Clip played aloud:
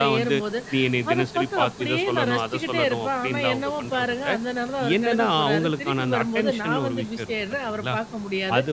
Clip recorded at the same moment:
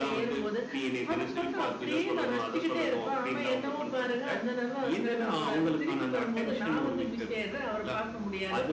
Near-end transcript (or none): none